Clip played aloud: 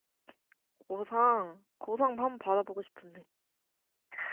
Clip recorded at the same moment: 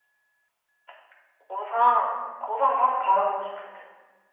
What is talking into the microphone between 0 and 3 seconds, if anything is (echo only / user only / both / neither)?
echo only